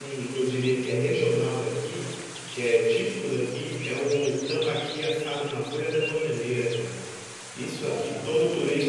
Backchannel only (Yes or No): Yes